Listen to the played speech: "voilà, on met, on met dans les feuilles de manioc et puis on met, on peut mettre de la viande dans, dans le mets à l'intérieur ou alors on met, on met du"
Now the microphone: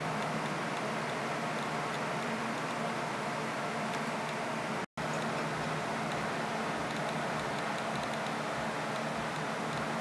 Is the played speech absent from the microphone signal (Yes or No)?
Yes